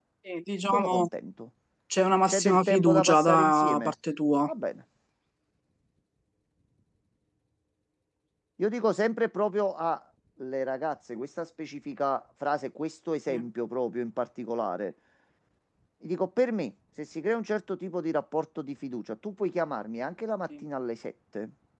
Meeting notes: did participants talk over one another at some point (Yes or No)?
Yes